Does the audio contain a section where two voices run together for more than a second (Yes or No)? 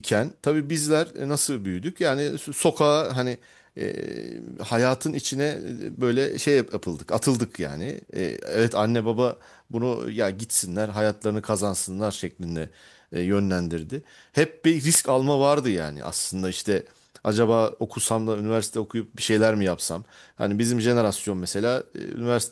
No